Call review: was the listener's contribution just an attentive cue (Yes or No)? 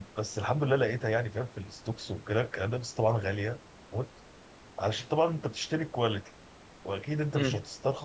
Yes